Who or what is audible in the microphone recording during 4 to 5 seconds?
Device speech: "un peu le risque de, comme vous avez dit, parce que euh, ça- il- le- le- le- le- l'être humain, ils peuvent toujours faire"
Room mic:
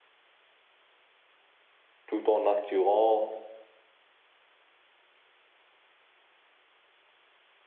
neither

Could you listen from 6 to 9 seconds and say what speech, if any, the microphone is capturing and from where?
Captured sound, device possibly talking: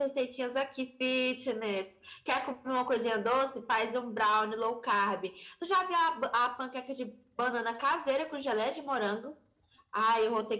echo only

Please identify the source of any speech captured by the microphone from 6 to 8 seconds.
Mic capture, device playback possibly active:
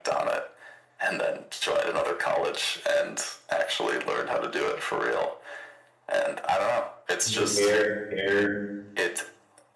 both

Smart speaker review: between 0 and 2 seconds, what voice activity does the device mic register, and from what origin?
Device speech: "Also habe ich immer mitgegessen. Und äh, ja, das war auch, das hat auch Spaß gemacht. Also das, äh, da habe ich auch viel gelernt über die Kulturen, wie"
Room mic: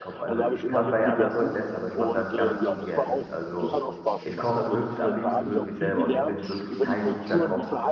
both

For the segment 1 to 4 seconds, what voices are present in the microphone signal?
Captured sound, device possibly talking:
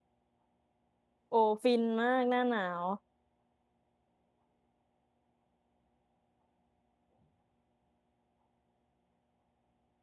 user only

